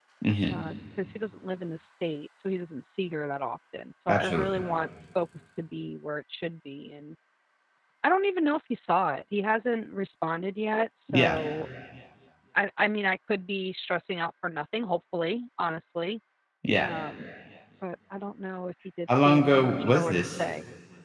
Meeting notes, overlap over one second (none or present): present